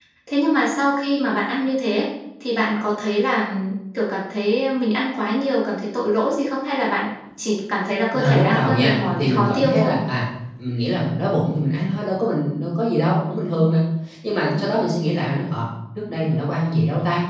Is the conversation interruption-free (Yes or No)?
No